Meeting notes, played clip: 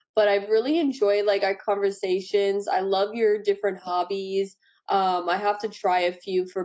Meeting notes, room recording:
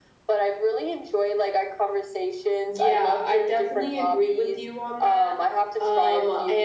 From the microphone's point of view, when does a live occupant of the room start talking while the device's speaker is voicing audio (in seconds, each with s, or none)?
2.8 s